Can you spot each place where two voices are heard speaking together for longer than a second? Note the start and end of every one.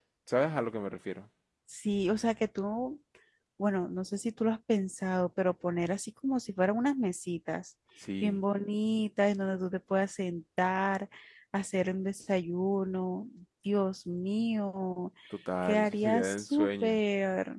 15.6-17.0

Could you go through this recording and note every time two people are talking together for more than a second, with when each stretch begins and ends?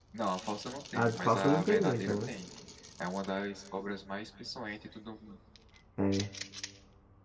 0.9-2.3

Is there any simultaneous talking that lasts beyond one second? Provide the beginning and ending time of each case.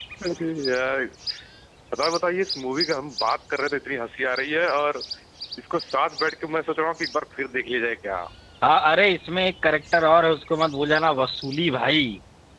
none

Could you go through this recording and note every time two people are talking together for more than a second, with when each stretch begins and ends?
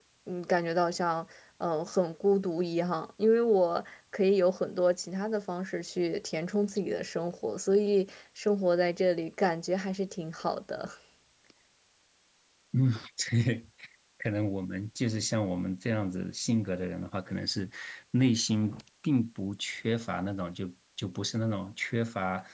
none

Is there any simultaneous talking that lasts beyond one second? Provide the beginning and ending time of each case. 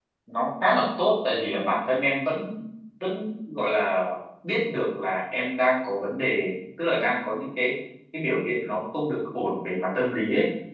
none

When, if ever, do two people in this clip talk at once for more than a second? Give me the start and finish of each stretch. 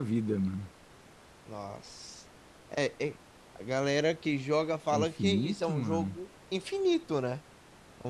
4.9-6.2

